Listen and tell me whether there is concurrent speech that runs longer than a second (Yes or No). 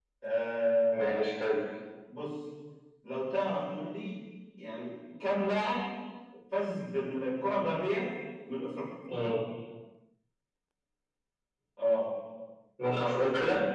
No